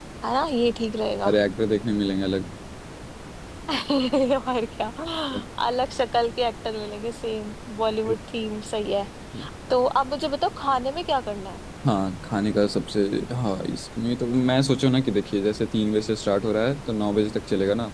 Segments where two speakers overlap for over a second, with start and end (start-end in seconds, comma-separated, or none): none